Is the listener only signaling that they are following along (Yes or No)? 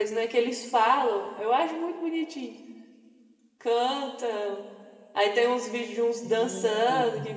Yes